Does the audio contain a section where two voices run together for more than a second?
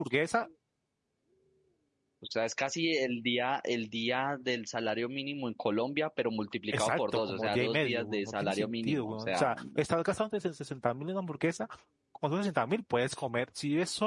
Yes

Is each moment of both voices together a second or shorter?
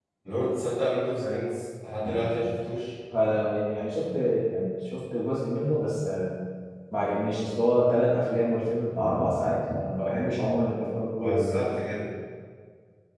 Yes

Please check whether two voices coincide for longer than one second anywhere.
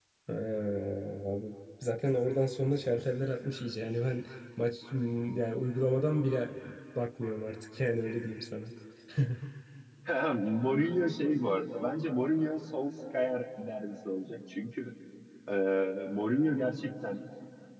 No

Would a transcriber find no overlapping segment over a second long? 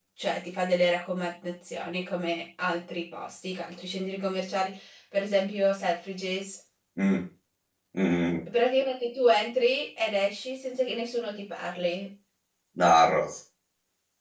Yes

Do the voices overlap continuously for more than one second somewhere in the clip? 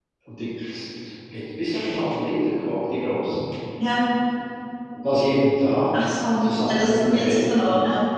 Yes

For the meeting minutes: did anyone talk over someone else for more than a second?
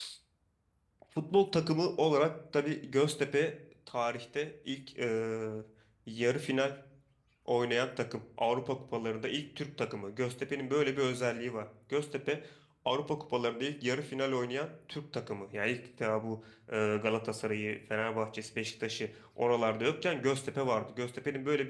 No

